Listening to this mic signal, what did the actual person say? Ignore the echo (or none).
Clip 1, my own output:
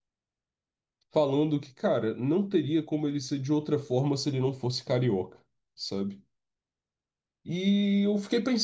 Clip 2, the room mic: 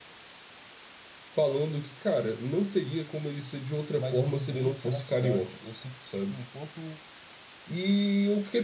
mais vivência na cidade. Eu sinto que, tipo, enquanto